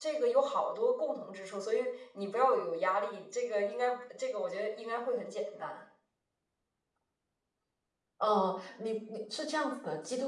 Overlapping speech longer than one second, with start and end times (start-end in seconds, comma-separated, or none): none